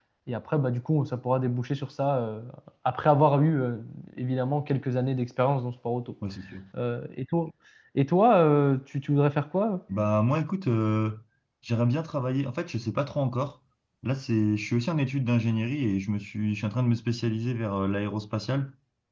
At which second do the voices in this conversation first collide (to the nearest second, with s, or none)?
none